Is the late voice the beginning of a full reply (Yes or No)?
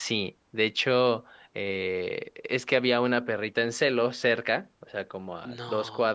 No